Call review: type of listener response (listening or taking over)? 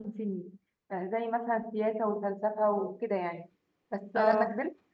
listening